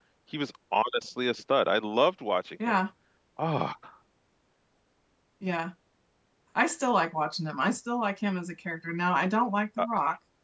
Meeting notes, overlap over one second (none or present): none